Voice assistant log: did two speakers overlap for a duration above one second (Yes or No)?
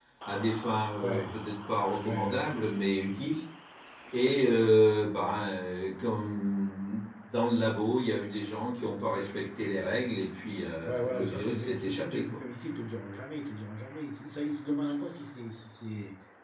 Yes